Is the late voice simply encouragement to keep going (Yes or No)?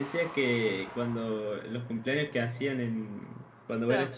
Yes